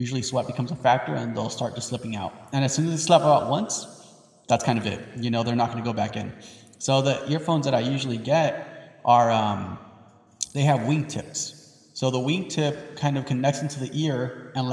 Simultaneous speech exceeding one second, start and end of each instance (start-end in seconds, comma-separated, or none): none